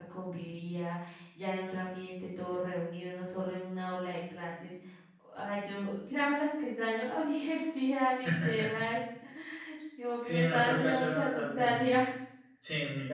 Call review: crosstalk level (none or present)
present